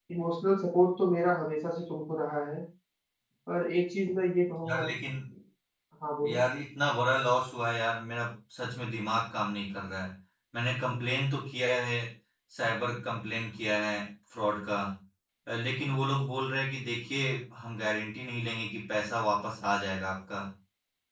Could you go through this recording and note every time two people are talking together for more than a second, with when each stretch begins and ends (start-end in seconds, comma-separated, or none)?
none